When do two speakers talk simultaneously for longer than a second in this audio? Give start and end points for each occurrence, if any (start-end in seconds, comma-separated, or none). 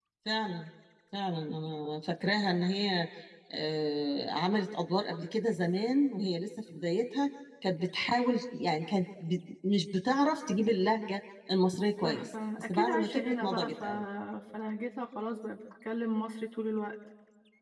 12.0-13.8